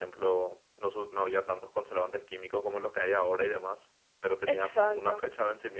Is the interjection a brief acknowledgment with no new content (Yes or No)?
Yes